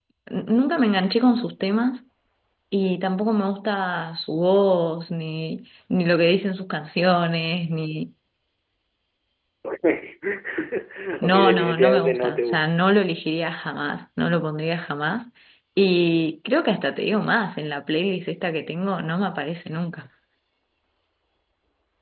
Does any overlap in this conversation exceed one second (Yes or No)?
Yes